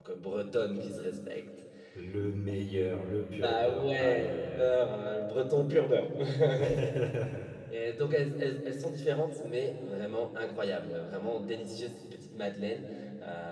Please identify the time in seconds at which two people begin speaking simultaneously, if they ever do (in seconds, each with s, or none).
3.3 s